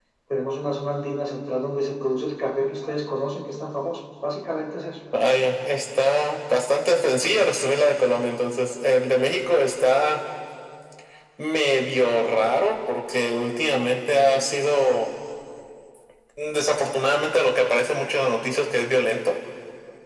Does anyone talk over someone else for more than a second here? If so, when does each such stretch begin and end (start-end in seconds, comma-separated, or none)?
none